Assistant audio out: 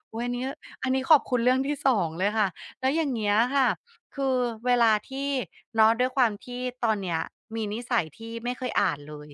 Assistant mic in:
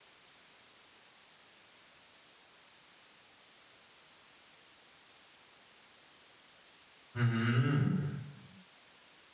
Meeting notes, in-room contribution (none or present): present